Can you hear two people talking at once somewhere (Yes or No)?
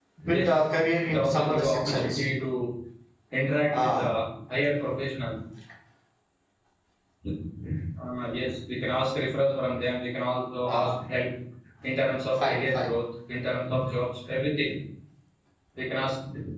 Yes